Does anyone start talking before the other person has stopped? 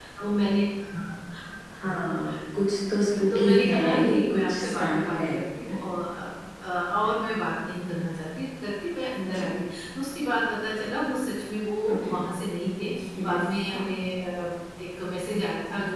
Yes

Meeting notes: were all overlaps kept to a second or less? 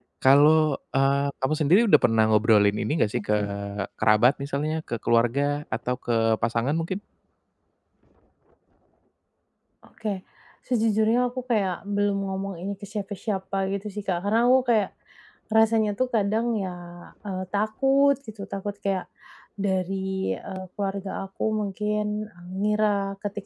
Yes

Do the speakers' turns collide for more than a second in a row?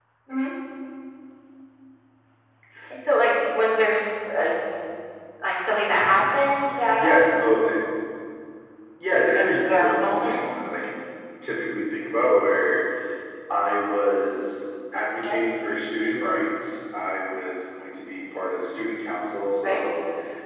Yes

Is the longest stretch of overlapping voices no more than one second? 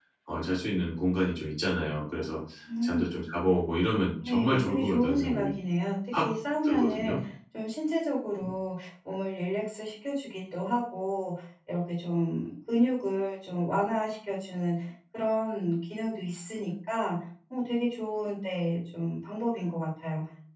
No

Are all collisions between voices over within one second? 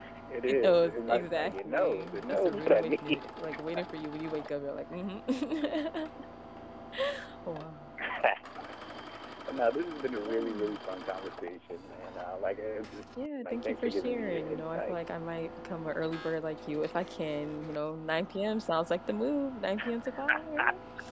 No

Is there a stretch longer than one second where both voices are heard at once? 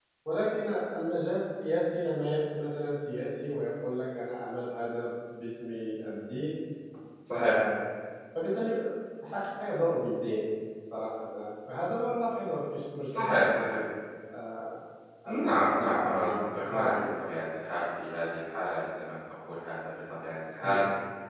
Yes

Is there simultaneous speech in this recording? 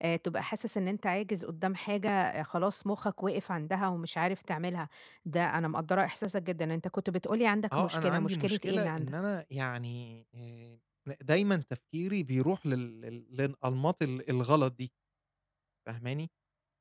Yes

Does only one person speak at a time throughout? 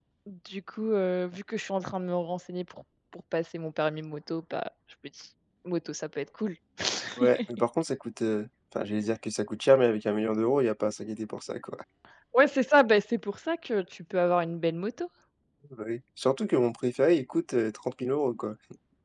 Yes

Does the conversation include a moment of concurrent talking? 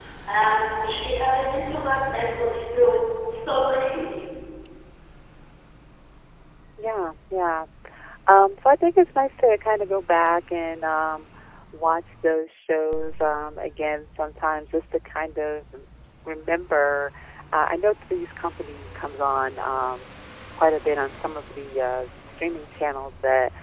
No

